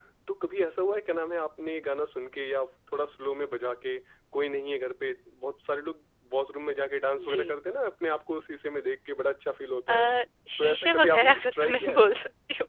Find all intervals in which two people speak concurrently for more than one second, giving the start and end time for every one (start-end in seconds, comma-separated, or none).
10.6-12.1